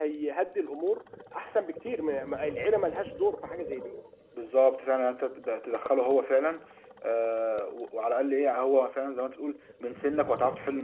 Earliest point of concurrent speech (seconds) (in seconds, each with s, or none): none